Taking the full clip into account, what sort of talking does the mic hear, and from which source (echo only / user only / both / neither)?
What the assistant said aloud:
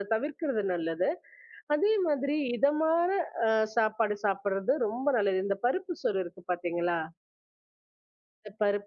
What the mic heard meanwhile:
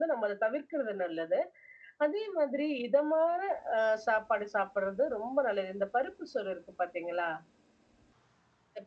echo only